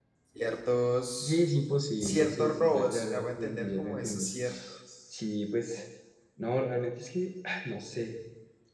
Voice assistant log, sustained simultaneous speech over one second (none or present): present